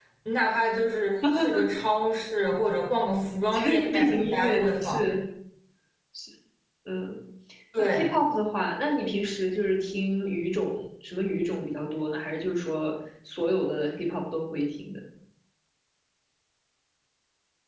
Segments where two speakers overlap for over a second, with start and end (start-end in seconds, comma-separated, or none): 3.5-5.1